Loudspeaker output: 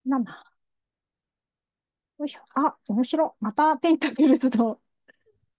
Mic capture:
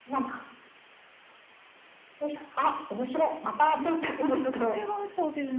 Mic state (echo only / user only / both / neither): both